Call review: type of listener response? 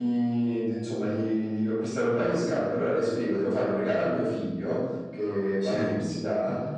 listening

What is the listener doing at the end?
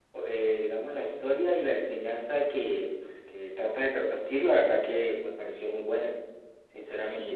taking over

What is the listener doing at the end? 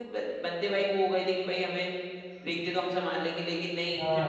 listening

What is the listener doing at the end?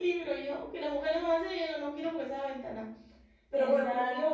listening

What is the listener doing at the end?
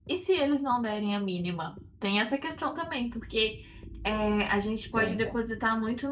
listening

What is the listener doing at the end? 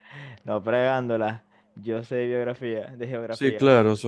taking over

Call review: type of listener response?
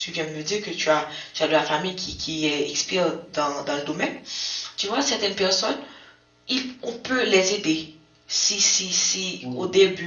listening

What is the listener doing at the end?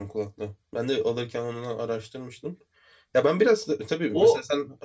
listening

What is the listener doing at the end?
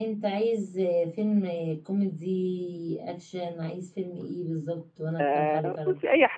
taking over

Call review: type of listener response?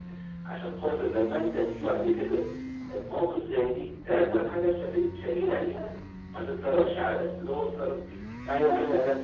taking over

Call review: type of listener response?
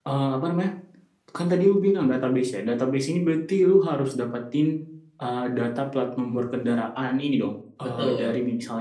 listening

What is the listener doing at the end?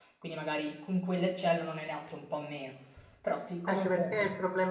taking over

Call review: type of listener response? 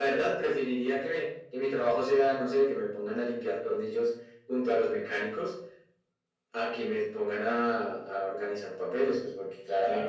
taking over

